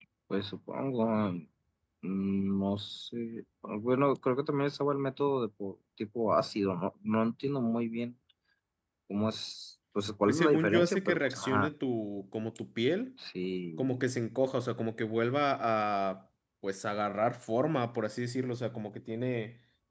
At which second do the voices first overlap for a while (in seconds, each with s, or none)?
10.2 s